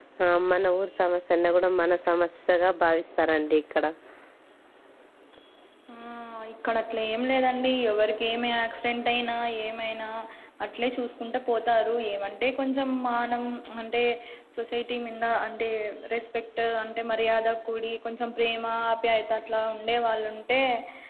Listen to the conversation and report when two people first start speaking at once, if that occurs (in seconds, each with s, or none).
none